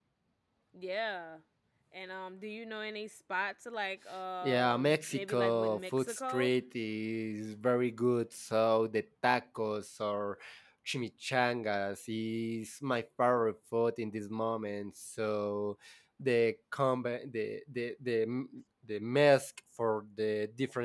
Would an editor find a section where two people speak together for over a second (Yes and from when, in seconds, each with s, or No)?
Yes, from 4.4 s